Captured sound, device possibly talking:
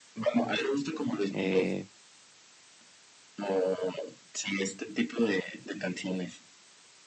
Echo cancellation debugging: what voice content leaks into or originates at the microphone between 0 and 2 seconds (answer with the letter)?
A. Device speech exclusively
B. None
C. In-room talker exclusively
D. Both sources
D